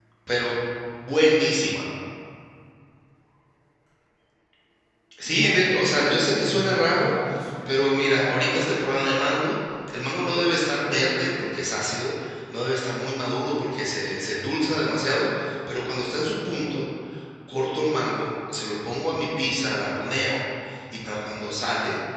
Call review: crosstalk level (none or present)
present